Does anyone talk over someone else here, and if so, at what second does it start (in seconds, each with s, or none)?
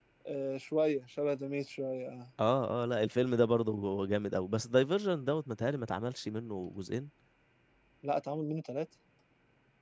none